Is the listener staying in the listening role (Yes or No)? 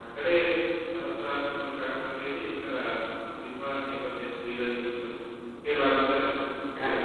No